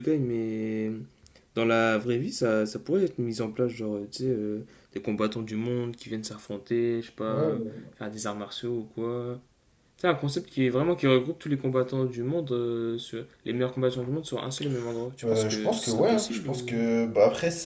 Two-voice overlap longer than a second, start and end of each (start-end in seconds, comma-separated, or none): 15.3-16.8